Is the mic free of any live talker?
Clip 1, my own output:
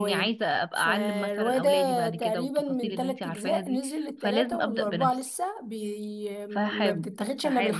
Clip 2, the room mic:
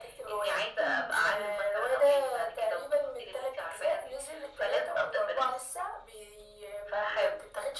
No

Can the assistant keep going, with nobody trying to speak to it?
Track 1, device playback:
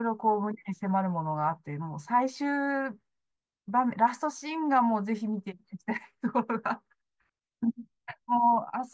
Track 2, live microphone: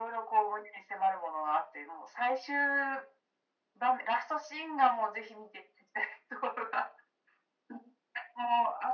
Yes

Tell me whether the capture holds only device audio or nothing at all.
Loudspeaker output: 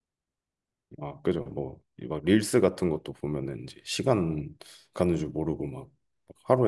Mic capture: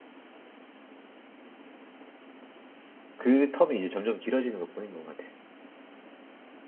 No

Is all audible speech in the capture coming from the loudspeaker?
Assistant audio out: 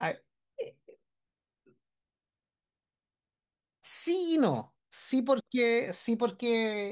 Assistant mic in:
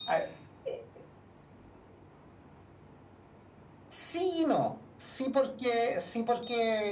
Yes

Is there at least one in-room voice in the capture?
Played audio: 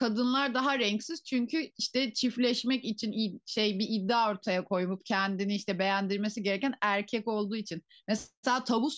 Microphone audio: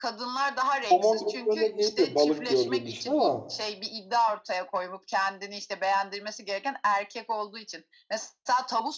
Yes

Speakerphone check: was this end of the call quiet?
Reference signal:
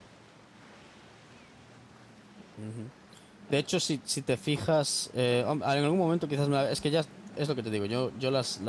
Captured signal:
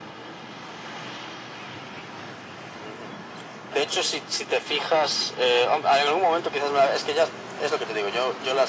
Yes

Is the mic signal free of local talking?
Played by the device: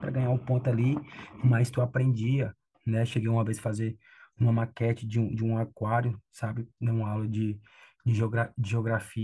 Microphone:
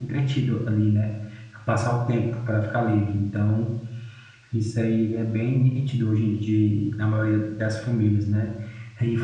No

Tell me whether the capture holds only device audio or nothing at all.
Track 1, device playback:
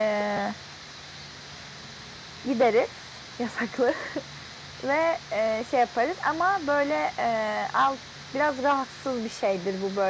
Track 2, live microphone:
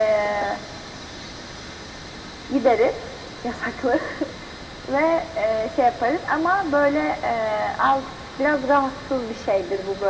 Yes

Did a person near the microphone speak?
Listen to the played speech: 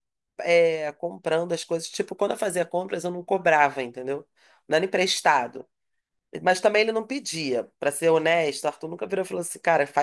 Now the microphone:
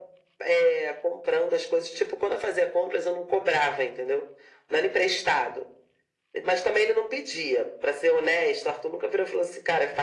No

